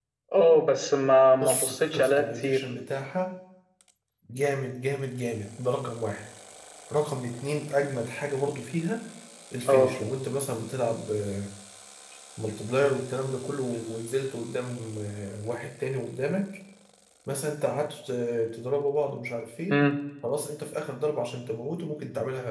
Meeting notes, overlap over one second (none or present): present